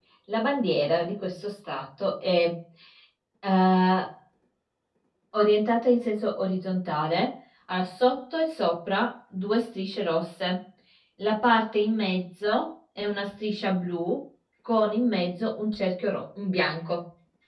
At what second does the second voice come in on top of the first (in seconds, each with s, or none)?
none